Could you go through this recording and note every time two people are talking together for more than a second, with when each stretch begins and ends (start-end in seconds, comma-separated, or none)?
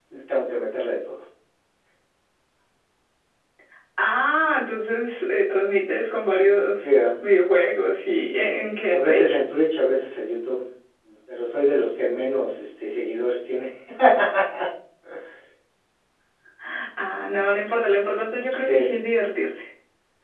none